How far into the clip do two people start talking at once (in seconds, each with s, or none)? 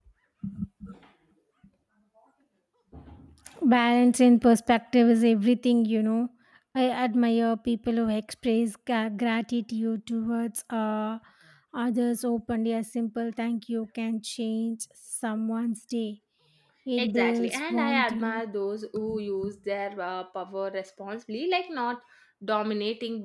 17.0 s